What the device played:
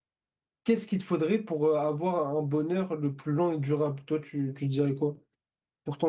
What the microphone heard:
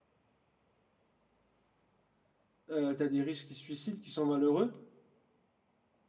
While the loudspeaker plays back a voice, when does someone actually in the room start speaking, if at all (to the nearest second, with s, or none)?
3 s